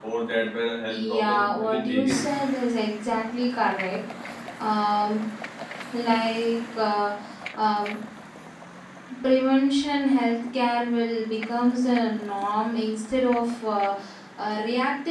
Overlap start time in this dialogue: 1 s

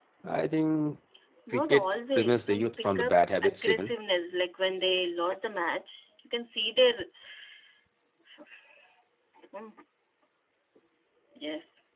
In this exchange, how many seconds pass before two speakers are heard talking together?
2 s

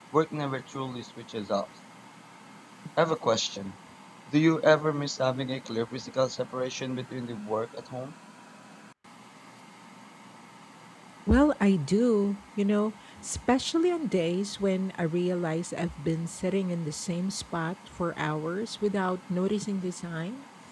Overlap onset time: none

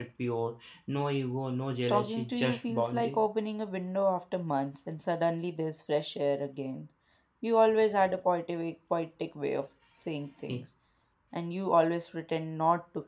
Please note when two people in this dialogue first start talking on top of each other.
2 s

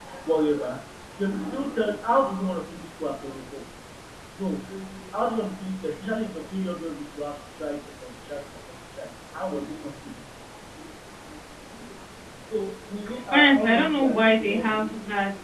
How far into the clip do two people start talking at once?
13 s

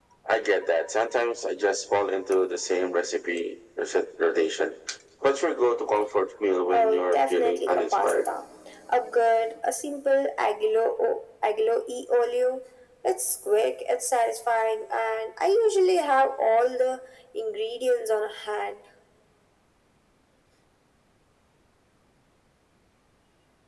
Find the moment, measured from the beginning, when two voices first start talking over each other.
7 s

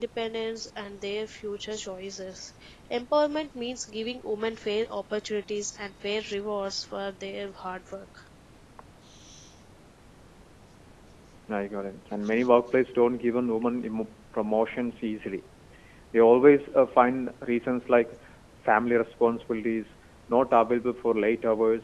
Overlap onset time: none

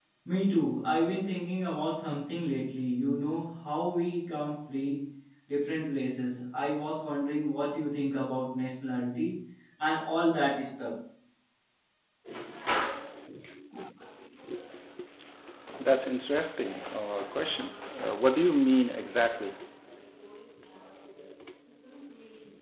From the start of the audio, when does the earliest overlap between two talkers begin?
none

